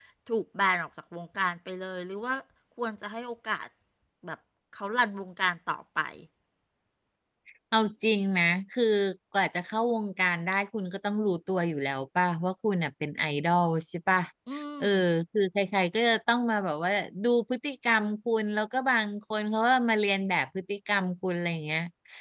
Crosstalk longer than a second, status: none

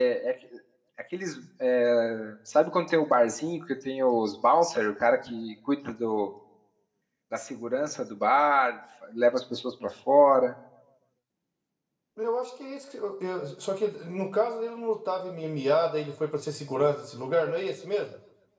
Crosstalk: none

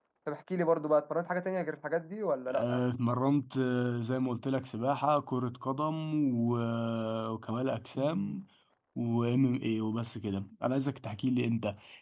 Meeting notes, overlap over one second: none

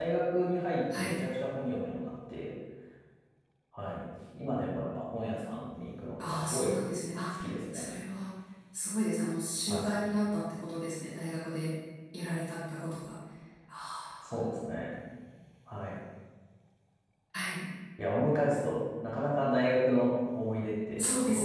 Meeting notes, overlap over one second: none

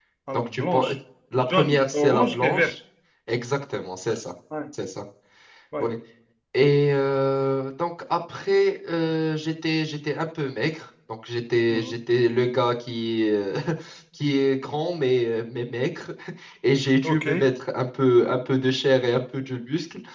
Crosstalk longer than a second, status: present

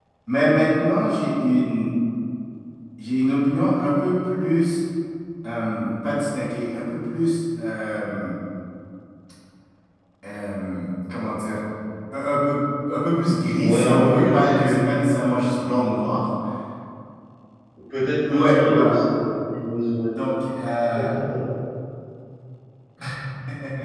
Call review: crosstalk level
present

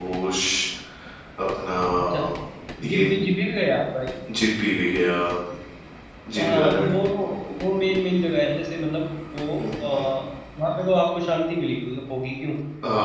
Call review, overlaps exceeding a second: none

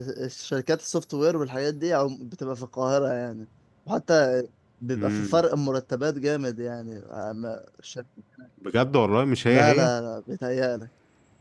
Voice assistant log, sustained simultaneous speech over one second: none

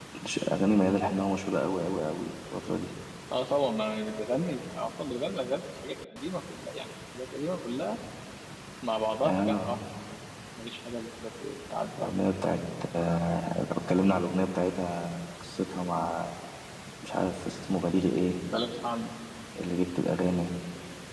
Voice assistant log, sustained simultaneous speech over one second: none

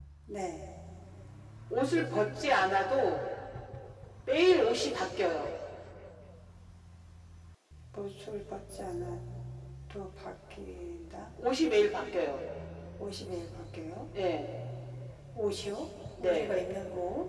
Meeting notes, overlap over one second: none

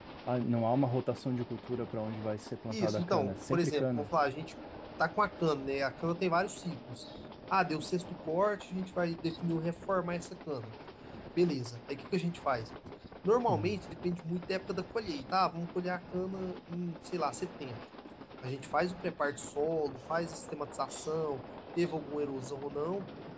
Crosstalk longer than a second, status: present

